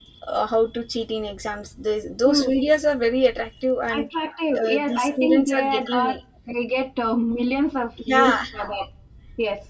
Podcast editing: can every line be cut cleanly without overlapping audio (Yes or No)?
No